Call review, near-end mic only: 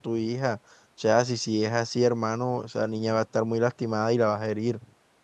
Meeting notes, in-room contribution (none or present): present